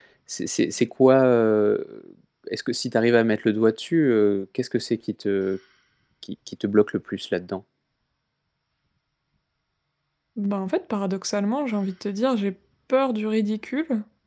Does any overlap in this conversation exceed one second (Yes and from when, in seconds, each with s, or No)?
No